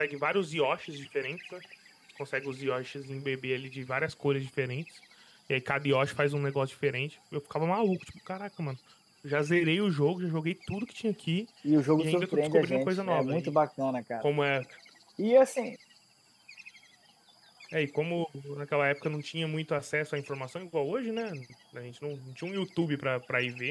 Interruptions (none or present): present